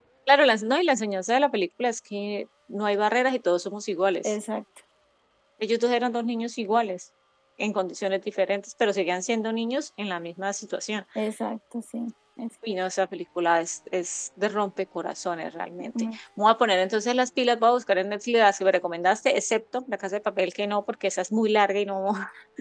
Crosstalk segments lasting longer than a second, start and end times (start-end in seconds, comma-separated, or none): none